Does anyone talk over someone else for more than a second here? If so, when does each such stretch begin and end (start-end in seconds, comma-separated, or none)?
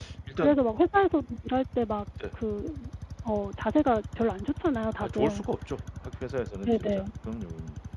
none